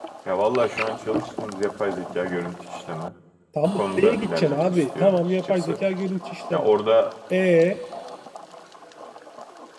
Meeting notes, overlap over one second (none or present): present